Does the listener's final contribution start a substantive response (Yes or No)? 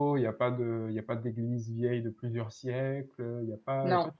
No